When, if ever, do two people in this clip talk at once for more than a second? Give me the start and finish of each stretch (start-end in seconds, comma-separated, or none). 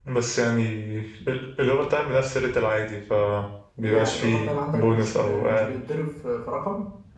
3.8-5.8